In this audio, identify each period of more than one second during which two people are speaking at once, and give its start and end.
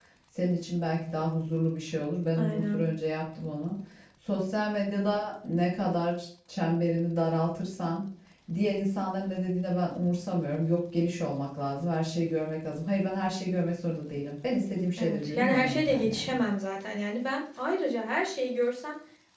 15.0-16.4

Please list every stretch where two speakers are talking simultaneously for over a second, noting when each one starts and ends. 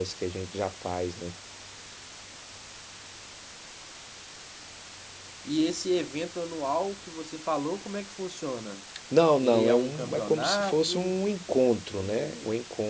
9.4-11.2

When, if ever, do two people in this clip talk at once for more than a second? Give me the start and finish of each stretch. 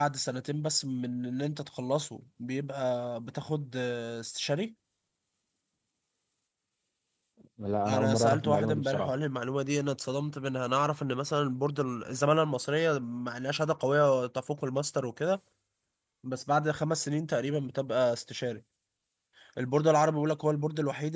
7.9-9.2

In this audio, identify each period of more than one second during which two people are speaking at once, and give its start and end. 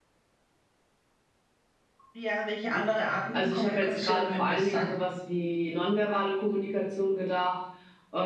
3.3-4.9

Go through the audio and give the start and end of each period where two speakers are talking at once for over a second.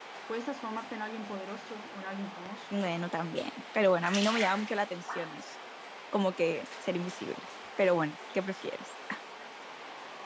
none

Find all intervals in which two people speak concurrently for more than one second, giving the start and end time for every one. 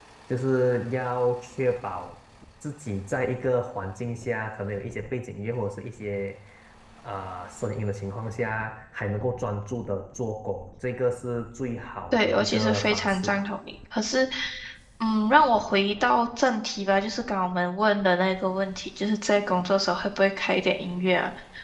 12.1-13.4

